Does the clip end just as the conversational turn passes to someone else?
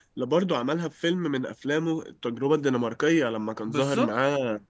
No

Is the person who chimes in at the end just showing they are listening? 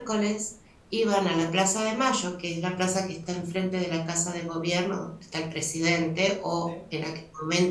Yes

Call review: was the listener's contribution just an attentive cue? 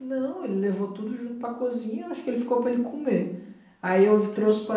Yes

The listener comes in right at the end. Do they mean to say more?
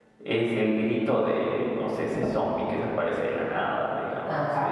Yes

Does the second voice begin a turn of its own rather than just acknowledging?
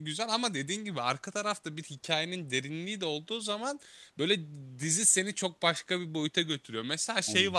No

